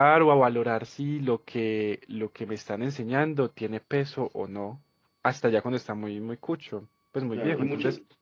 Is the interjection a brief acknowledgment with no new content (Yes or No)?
No